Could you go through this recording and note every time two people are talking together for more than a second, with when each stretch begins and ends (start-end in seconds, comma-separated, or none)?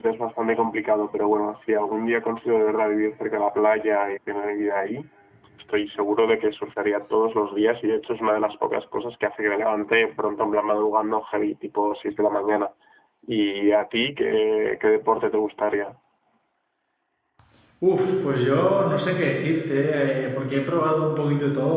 none